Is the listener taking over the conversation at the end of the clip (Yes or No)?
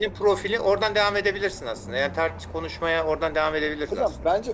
Yes